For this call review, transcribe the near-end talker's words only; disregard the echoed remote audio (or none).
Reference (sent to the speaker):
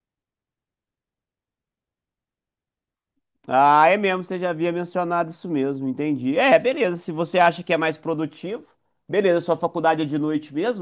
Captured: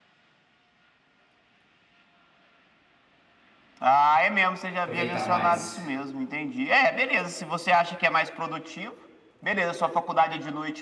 aproveitar mais.